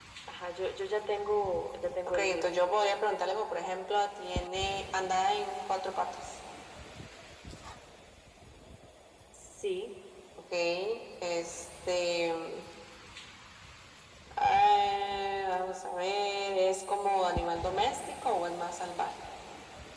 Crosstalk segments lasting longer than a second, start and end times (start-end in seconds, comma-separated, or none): none